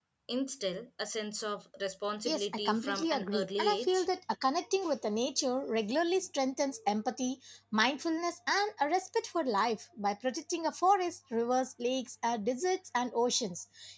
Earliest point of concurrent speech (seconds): 2.2 s

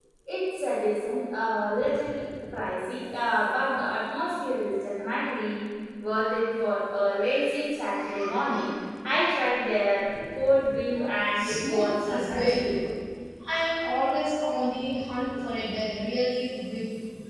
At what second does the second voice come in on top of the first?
11.3 s

